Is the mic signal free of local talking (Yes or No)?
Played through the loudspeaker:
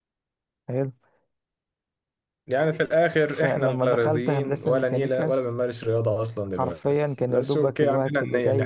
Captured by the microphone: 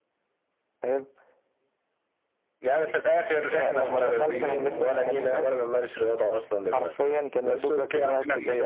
No